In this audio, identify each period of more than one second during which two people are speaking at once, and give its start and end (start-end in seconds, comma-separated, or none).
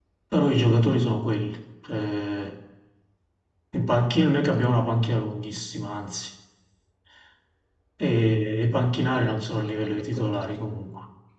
9.1-10.4